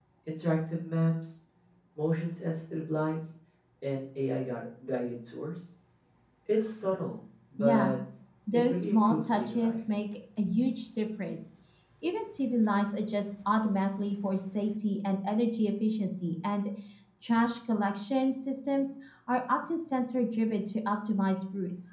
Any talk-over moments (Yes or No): Yes